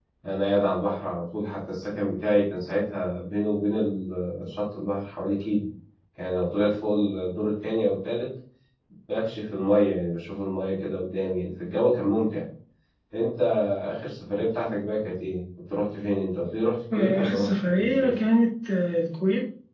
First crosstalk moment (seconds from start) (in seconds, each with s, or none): 16.9 s